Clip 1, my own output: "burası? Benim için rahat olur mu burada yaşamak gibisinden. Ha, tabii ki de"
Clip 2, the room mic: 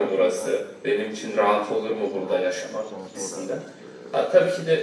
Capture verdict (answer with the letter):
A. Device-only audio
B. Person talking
B